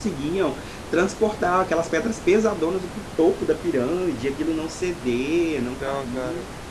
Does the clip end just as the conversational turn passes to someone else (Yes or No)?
No